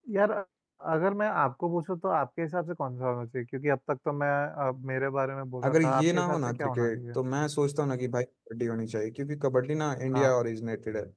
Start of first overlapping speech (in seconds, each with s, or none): 5.7 s